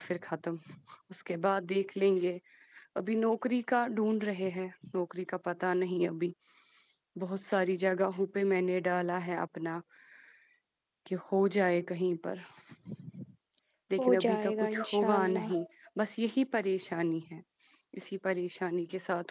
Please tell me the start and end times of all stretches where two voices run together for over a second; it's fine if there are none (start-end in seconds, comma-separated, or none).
14.0-15.5